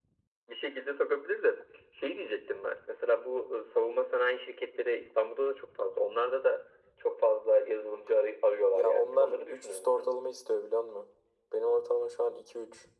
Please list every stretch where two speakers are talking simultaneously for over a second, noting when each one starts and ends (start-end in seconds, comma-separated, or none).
8.7-10.1